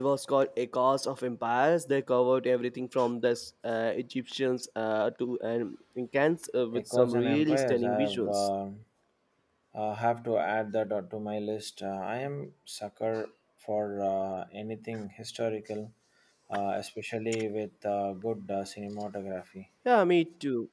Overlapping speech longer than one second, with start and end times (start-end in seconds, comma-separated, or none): 6.7-8.5